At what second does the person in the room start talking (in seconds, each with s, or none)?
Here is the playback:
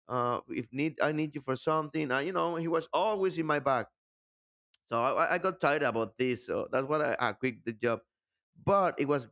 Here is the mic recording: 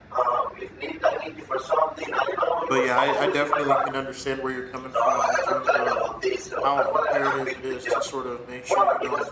2.6 s